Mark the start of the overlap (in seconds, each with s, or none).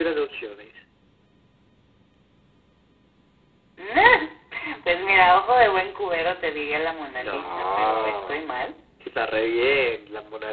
7.2 s